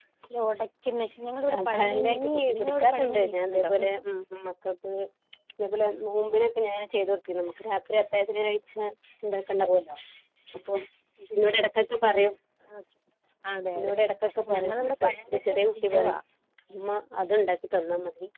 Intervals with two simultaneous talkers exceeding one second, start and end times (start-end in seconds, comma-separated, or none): 1.5-3.7, 14.4-16.2